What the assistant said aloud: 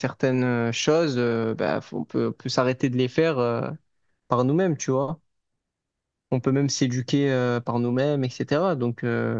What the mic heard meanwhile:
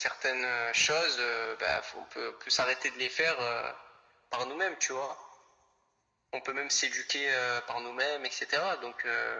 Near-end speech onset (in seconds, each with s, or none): none